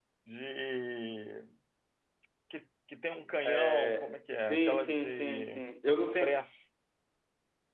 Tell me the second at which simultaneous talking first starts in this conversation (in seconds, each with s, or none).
3.4 s